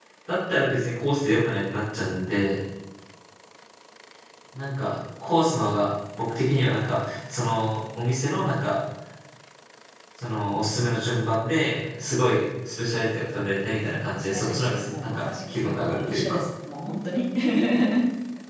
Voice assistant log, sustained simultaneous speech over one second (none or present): present